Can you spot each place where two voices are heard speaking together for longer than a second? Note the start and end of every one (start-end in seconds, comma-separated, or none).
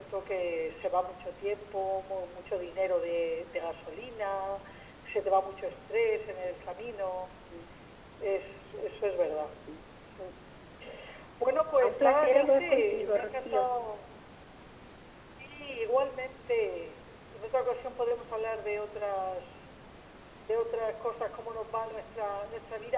11.8-13.7